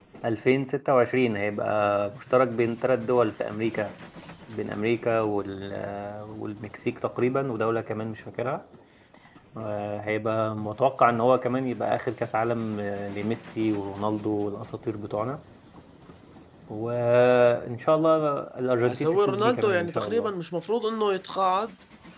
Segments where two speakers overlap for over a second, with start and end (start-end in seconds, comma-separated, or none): 18.9-20.3